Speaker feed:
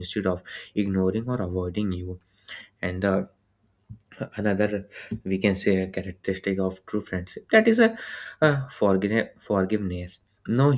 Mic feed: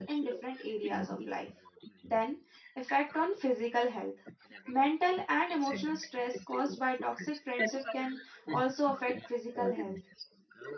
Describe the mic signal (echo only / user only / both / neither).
both